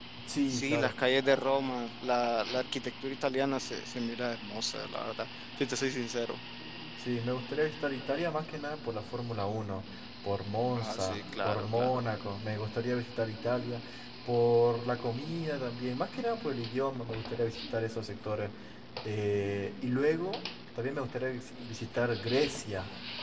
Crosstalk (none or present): present